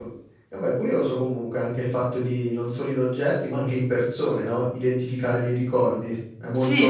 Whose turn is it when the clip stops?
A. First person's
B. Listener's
B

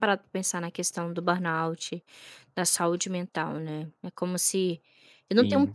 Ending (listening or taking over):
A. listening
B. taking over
A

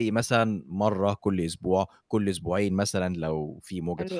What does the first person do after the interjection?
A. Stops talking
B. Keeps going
A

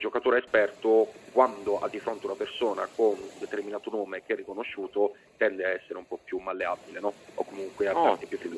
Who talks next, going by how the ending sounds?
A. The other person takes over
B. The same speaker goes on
A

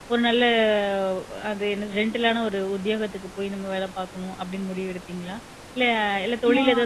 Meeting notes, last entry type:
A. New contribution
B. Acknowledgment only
B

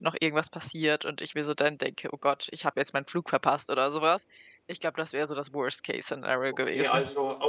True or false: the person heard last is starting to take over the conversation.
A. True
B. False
A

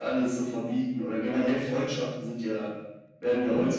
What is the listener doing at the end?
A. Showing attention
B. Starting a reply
A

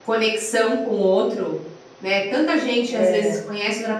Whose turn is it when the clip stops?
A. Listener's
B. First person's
B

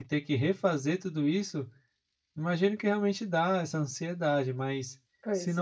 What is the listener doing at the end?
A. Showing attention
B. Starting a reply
A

